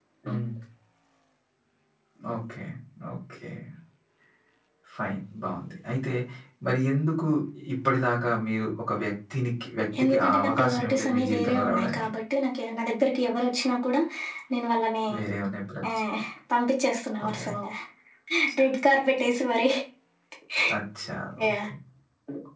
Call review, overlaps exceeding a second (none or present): present